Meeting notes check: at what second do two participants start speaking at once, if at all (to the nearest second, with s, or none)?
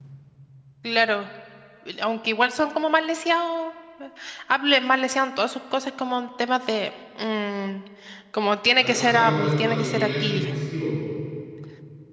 9 s